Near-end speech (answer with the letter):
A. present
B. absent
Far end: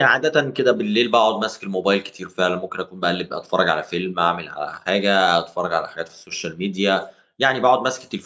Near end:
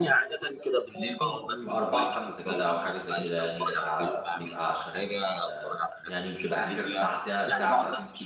A